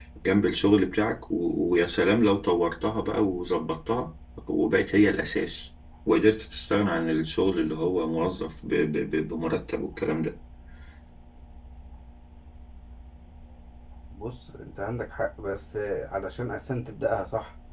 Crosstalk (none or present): none